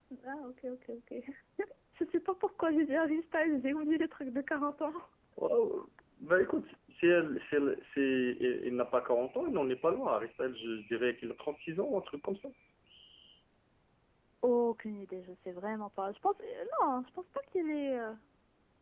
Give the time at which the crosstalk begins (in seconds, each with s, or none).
none